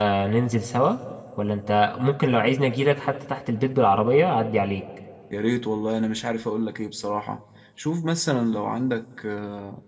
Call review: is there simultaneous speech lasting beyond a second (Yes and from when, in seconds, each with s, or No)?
No